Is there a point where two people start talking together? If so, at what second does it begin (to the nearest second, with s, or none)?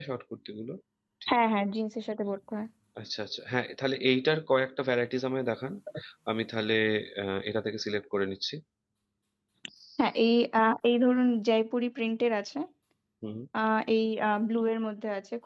none